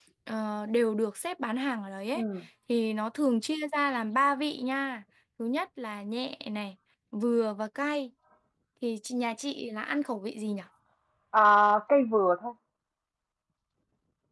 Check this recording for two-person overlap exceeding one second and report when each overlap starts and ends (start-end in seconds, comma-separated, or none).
none